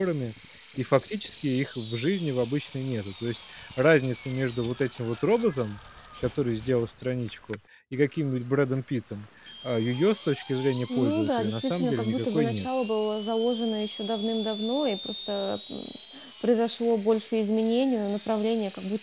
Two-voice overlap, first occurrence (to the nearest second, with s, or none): 11 s